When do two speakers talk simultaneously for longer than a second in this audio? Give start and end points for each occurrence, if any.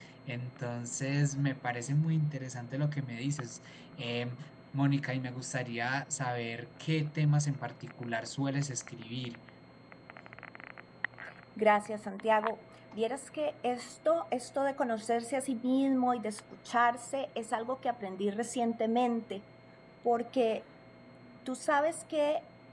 none

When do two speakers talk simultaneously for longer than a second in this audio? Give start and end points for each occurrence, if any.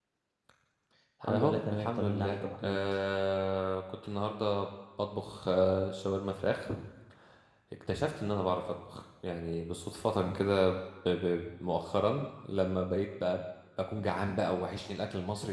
1.3-2.8

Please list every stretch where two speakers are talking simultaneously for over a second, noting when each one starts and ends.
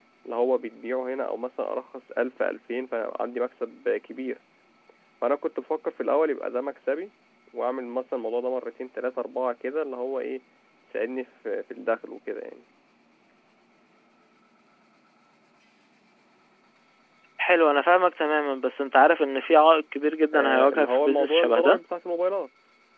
20.3-21.8

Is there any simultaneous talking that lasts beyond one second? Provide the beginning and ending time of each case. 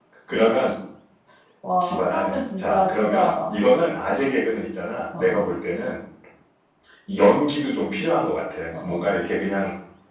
1.8-3.5

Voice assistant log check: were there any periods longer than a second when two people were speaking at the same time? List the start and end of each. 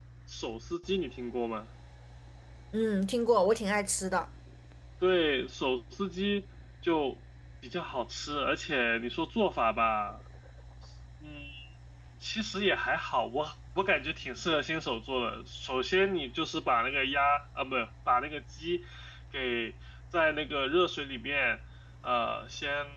none

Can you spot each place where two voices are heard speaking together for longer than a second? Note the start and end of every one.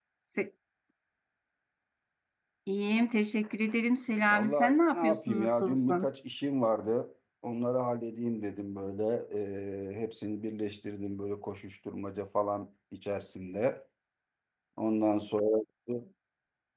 4.3-6.1

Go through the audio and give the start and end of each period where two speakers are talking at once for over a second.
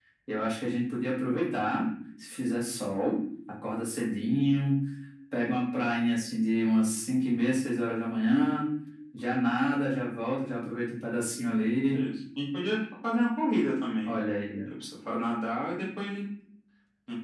none

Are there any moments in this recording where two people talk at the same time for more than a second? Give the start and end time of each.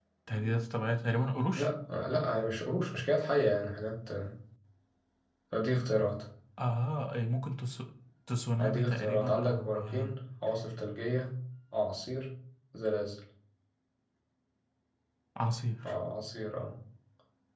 8.6-10.2

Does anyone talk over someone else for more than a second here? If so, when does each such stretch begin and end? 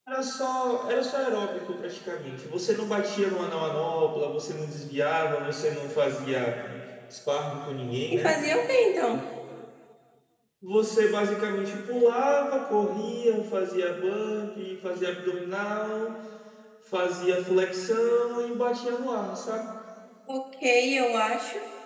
none

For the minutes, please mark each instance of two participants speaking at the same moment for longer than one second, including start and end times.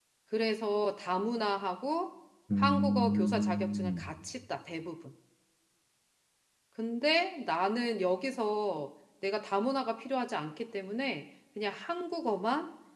2.6-4.0

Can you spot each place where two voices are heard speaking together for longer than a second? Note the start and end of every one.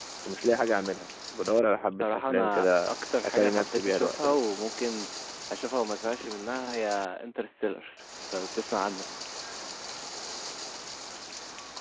1.9-4.4

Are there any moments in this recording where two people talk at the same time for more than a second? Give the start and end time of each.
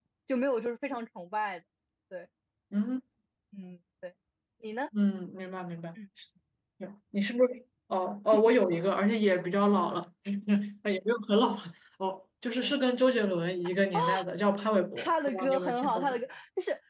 15.0-16.2

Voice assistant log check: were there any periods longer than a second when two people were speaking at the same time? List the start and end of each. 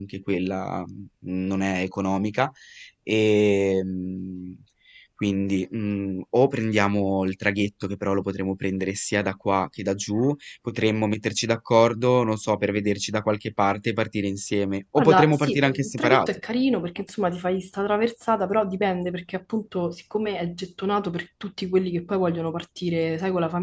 15.0-16.3

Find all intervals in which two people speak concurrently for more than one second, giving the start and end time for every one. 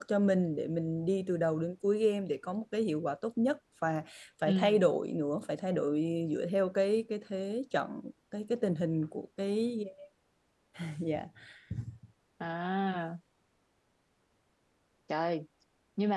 none

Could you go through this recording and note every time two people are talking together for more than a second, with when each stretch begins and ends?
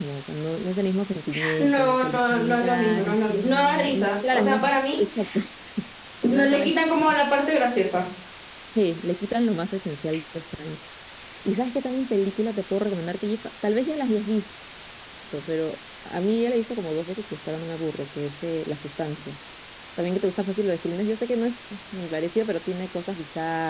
1.6-5.0

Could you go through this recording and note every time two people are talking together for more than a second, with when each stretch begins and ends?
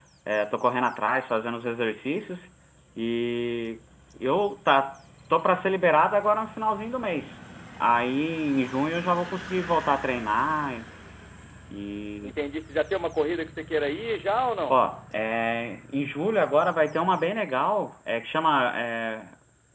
none

